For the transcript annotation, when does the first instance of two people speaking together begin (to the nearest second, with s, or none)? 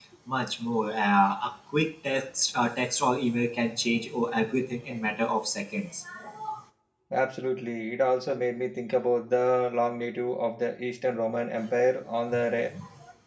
none